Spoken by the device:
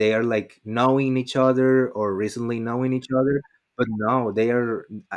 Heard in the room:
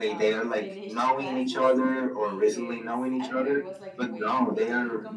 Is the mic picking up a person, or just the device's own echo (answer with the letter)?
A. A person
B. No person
A